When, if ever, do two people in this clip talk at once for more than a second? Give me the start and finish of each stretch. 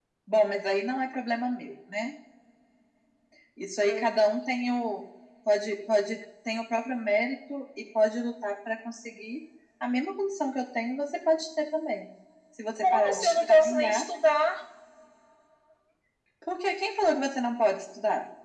12.8-14.1

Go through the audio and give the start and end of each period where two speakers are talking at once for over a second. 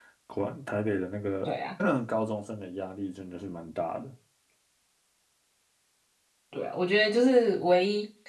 none

